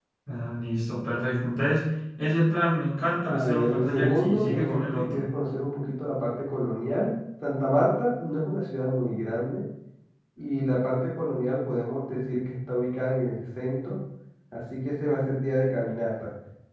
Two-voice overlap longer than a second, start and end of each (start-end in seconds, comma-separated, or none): 3.3-5.3